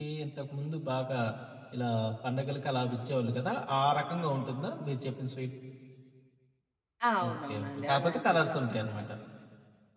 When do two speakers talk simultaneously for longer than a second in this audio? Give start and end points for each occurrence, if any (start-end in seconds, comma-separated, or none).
7.3-8.5